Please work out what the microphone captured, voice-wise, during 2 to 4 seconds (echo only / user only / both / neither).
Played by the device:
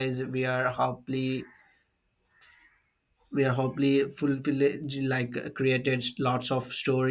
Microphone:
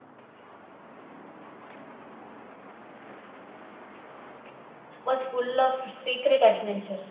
neither